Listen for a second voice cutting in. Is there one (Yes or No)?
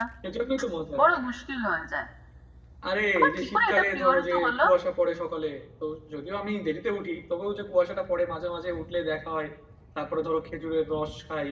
Yes